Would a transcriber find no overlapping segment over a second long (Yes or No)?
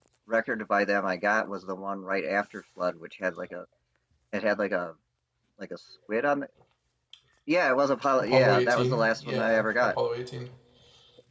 No